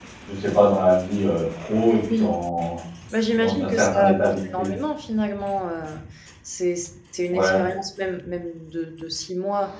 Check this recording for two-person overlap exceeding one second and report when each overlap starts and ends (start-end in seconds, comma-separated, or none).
3.3-4.7